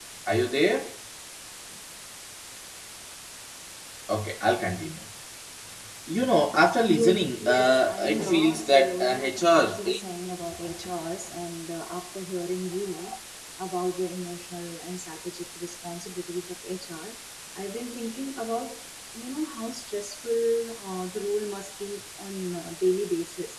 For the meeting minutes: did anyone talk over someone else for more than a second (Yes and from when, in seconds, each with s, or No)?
Yes, from 6.9 s